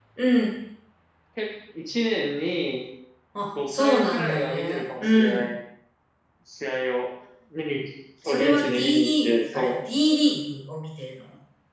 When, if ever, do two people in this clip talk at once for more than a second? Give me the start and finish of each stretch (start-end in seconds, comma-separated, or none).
3.7-5.4, 8.2-9.8